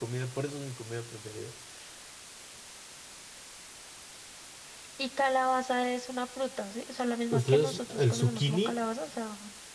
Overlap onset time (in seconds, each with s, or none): 7.3 s